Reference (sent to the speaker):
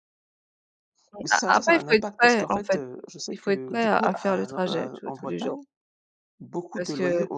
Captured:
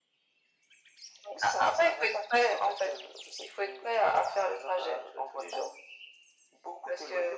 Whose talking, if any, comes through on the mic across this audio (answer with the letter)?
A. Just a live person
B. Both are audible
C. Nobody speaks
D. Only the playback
D